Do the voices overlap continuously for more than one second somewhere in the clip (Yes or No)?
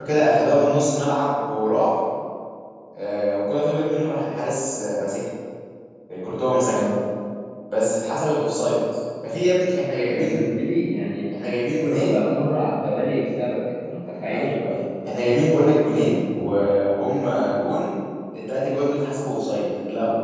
No